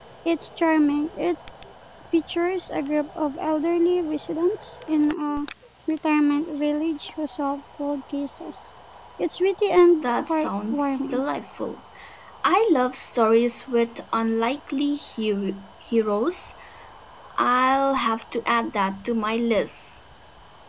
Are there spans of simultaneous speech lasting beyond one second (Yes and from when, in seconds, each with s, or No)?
Yes, from 10.0 s